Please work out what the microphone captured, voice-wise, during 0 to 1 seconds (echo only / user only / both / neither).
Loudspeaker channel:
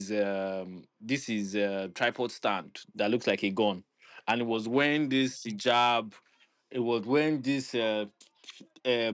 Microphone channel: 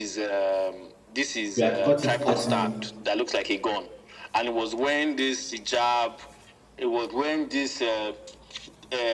echo only